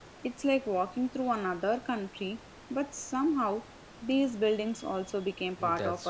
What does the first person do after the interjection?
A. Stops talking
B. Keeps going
A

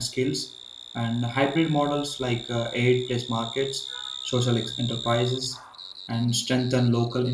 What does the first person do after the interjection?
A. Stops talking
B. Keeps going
B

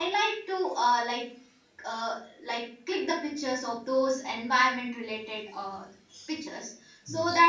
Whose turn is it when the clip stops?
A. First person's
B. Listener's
A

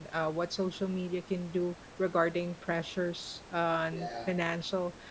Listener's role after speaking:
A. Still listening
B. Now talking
A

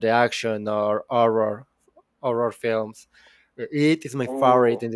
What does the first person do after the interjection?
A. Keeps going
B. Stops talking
A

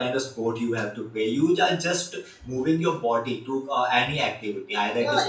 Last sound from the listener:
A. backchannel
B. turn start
B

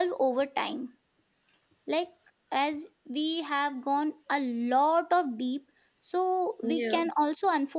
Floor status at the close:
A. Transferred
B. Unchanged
B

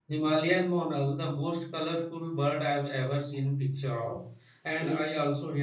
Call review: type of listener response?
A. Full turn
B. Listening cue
B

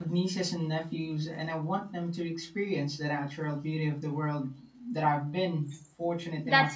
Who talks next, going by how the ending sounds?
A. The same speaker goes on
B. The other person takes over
B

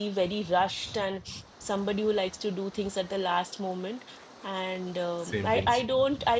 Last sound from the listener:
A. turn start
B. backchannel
B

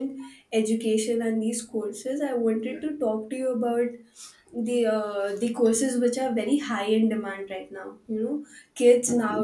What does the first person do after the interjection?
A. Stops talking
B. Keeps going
B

